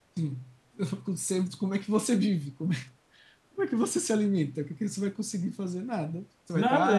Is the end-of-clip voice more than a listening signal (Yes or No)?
No